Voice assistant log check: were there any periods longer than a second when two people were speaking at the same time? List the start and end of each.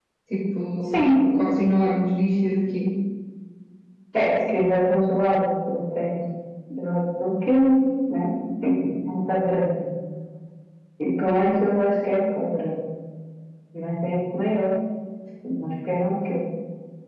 none

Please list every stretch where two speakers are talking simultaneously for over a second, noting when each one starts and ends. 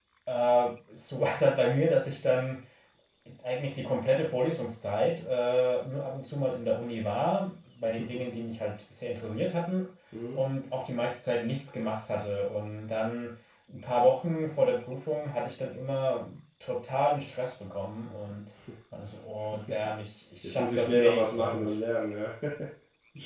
20.4-21.7

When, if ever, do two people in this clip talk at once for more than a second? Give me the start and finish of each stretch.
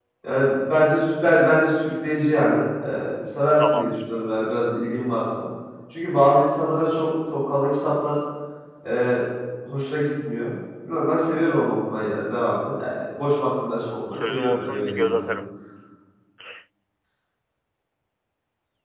14.1-15.4

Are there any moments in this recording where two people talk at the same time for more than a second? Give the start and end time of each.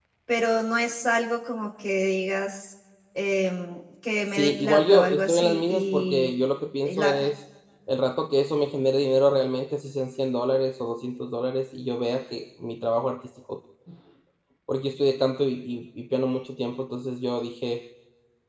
4.3-6.3

